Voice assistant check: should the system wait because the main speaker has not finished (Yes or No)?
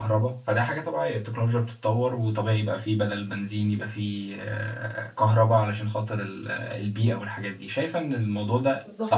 No